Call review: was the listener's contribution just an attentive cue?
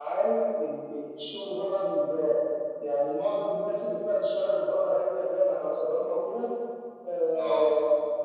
Yes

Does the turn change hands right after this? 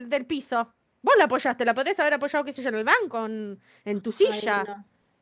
Yes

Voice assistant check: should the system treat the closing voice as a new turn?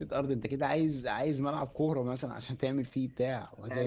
No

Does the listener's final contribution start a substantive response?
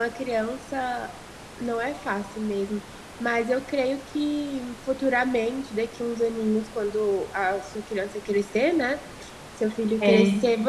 No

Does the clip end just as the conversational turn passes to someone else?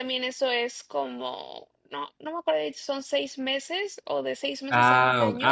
Yes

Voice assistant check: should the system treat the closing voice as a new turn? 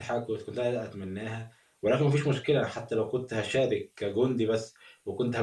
No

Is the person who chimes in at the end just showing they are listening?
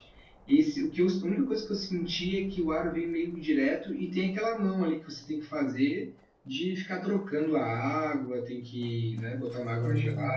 No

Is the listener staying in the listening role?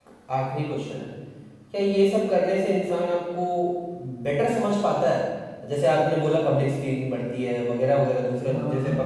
Yes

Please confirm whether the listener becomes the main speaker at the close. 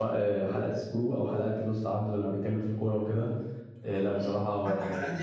Yes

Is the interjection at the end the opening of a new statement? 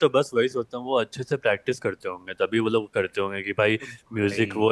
No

